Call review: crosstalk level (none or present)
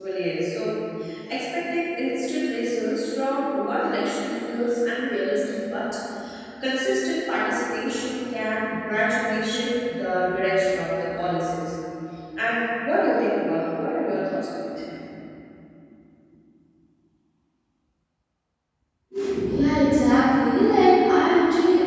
none